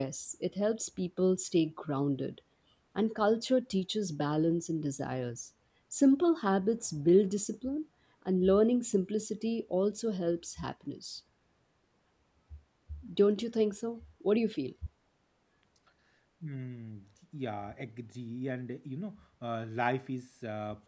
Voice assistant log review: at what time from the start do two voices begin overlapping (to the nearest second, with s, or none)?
none